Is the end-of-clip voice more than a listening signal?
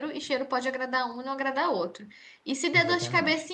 No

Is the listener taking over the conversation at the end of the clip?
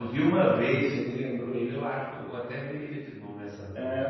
Yes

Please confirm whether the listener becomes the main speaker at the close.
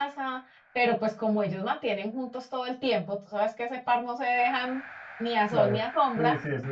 Yes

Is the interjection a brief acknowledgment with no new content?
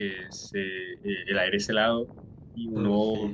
Yes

